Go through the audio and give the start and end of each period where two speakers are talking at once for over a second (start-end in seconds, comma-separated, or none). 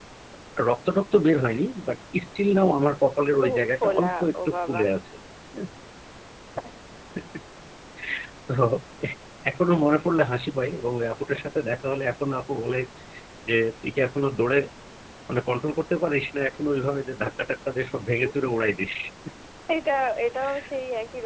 3.5-4.8